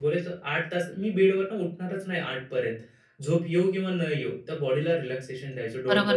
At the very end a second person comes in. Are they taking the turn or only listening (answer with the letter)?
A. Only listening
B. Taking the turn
B